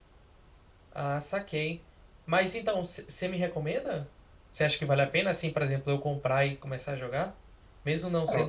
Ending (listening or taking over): listening